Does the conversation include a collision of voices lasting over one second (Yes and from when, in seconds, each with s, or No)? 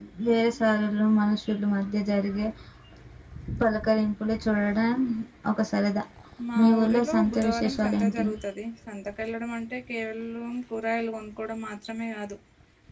Yes, from 6.6 s